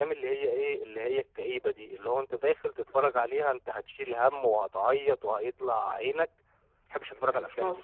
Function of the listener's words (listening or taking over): taking over